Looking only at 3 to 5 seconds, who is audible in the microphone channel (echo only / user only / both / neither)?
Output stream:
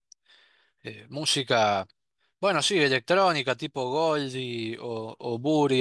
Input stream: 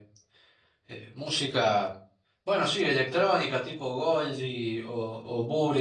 echo only